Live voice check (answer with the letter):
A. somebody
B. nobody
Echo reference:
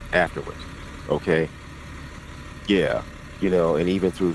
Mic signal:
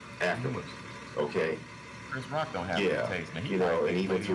A